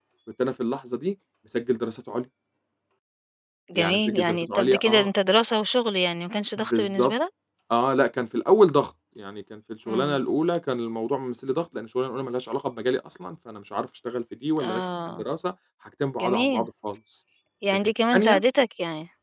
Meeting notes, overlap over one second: present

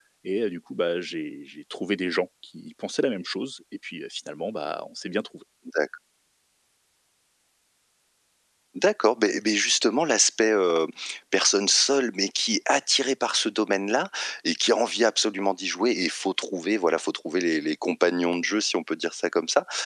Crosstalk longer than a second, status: none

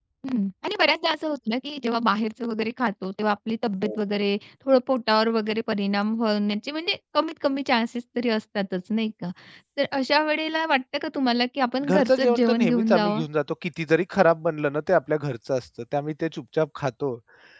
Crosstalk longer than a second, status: present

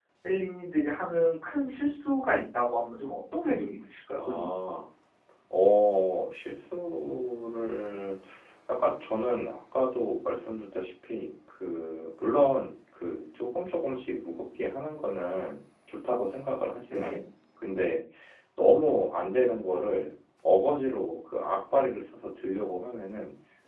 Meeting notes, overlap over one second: none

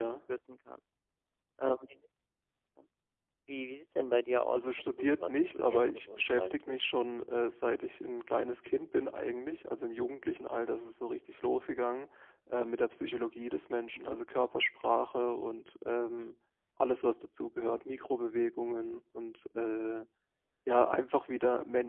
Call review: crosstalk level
present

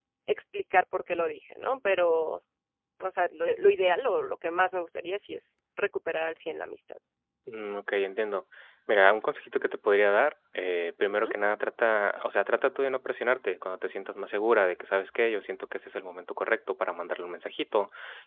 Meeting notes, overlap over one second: none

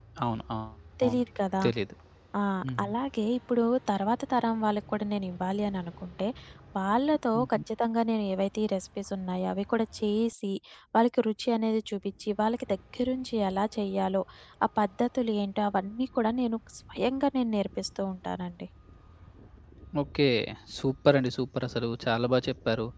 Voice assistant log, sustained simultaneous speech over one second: none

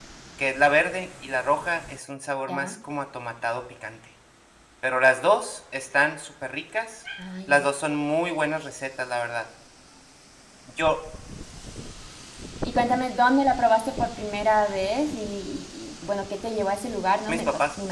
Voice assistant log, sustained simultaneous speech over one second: none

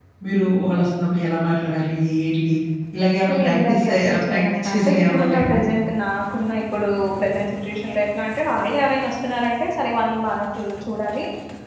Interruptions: present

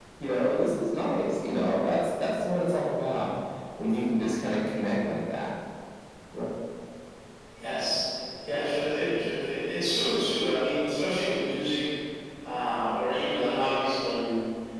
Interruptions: none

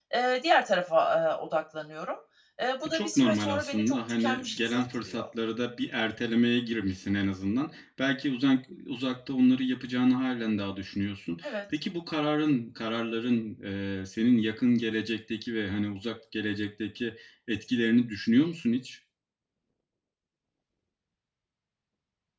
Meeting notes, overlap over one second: present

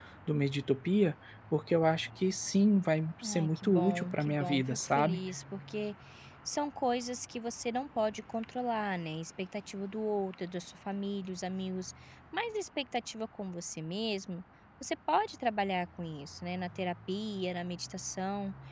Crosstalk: present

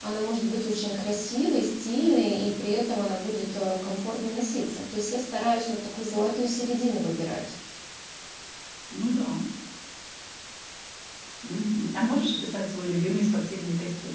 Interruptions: none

